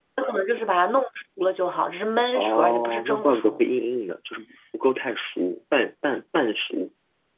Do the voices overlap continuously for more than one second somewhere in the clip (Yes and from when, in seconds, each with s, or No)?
Yes, from 2.4 s